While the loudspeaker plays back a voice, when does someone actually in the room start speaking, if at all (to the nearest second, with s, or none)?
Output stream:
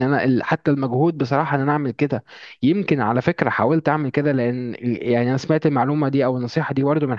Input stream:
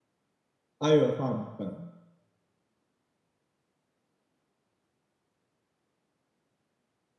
1 s